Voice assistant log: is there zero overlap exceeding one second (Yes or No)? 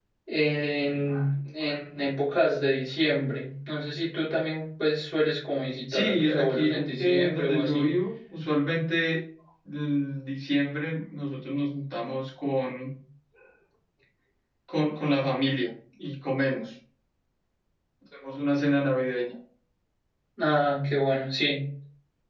No